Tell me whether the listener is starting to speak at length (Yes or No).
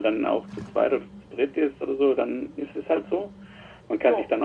No